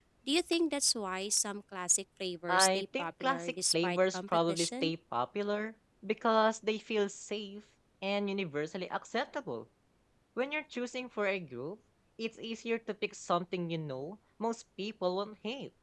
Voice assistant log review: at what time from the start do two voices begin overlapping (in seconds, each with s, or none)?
2.5 s